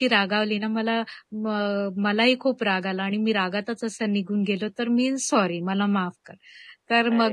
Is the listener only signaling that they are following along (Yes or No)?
Yes